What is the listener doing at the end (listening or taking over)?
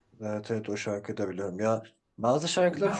taking over